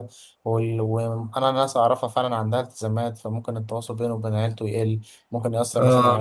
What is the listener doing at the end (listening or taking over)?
listening